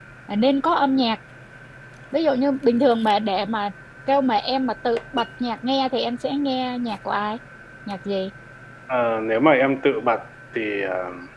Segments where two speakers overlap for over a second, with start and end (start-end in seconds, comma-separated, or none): none